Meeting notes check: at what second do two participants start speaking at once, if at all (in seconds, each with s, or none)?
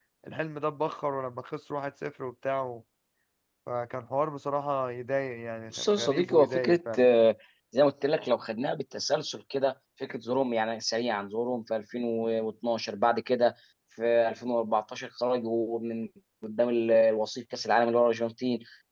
5.7 s